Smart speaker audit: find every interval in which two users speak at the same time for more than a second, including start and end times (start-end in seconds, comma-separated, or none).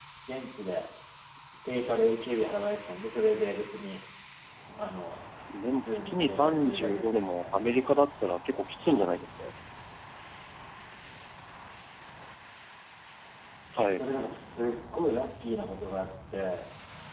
5.8-7.7